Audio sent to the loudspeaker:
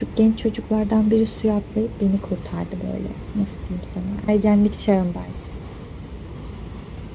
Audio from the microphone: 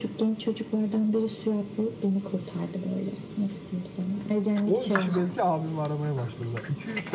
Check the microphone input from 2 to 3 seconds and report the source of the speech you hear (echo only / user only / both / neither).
echo only